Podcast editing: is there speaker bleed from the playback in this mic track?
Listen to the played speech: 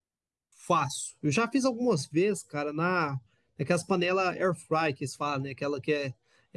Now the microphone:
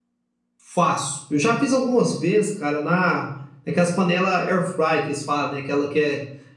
Yes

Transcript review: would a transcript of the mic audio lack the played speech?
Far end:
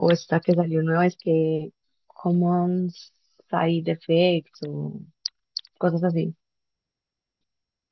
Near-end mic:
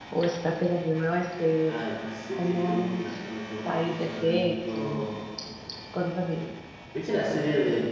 No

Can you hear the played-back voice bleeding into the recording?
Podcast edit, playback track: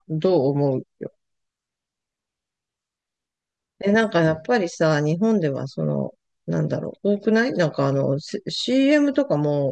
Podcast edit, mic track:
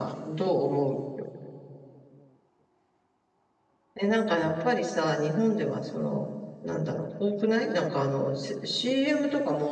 Yes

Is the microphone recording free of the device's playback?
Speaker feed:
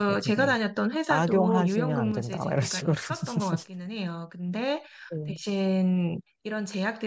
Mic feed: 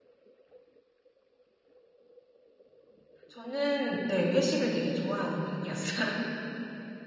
Yes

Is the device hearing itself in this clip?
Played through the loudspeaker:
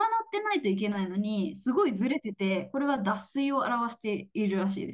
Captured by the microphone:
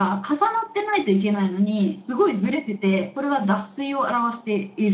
Yes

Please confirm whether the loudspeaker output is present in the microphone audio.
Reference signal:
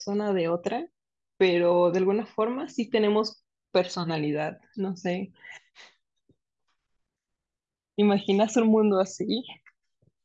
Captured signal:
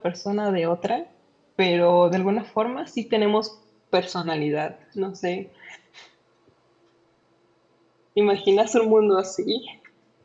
Yes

